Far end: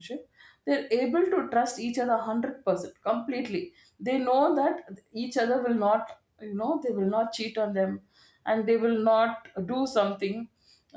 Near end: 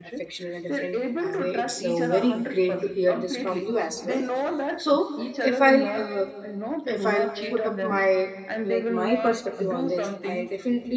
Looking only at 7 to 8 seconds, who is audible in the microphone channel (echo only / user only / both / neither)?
both